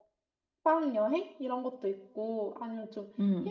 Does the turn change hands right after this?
No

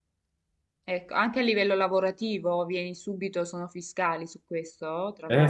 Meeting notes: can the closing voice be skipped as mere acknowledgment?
No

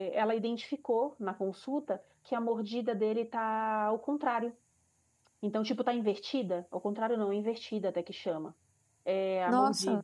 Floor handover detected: No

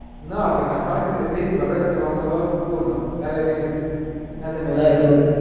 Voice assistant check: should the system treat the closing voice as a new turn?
Yes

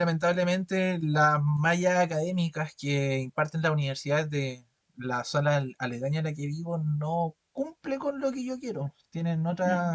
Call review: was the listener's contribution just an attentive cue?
Yes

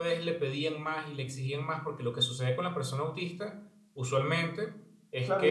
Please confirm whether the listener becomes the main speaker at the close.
Yes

